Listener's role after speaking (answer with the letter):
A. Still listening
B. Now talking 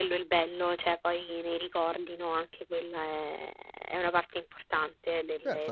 B